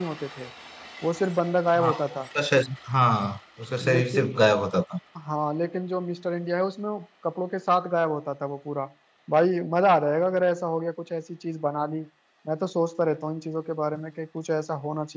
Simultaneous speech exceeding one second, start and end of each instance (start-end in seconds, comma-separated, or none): none